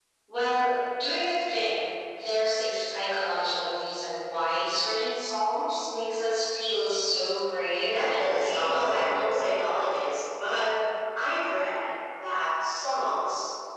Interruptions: present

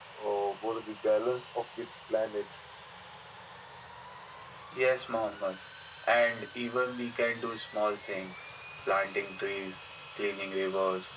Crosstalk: none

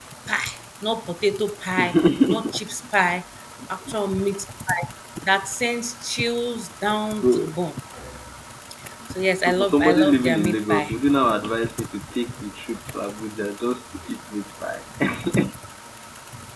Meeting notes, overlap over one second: present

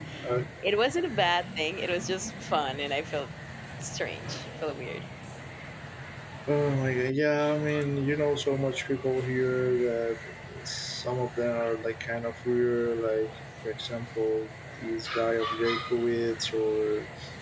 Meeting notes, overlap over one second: none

